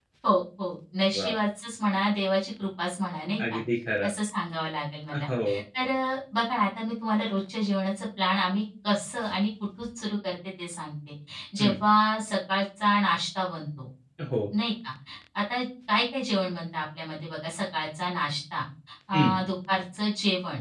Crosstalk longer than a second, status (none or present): none